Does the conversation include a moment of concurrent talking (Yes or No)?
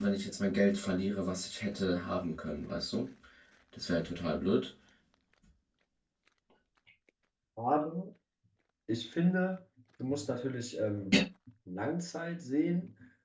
No